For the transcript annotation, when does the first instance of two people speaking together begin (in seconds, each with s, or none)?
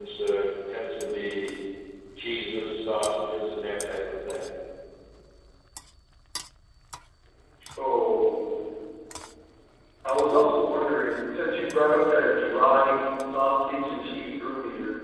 none